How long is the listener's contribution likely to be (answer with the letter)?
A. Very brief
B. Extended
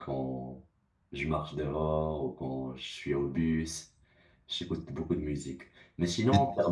A